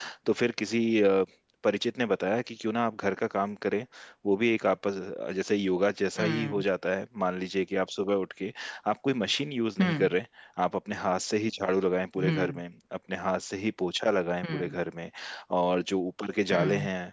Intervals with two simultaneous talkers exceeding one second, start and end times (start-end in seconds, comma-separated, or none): none